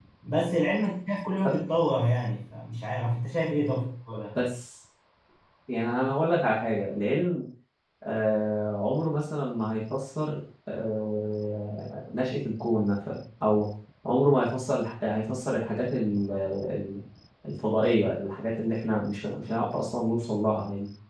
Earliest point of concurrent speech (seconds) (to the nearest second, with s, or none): none